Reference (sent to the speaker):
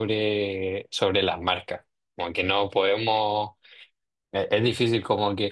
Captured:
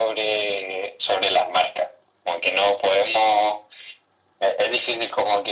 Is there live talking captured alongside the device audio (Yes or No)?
No